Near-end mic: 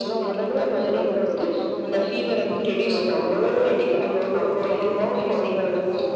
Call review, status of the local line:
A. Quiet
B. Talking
B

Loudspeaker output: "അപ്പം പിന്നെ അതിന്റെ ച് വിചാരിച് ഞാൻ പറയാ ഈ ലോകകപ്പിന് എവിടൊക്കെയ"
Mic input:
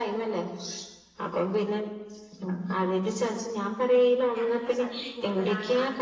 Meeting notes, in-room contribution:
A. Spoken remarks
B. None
A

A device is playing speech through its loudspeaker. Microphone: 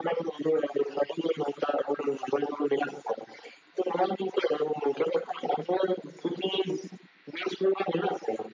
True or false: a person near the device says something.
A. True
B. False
B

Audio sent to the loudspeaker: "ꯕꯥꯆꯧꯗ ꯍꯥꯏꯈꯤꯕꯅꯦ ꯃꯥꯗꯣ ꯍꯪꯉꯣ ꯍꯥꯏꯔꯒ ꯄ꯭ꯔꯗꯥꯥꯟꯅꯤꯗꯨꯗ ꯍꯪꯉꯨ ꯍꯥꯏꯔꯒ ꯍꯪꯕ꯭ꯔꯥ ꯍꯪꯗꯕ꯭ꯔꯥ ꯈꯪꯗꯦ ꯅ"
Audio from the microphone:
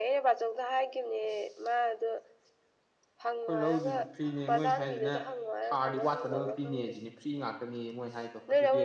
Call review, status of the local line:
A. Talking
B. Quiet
A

